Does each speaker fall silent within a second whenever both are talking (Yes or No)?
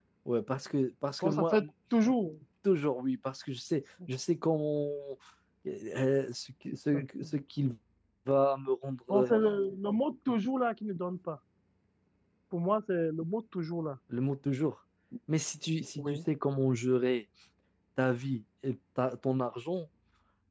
Yes